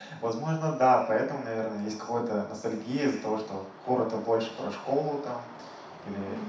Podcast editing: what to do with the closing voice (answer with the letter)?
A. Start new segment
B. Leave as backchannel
B